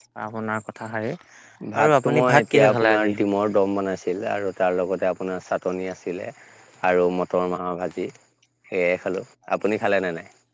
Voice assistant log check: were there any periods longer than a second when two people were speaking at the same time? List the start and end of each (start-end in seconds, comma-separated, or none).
1.8-3.1